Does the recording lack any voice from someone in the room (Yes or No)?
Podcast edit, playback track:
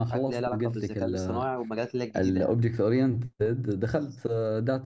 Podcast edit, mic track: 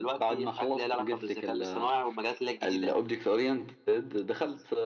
Yes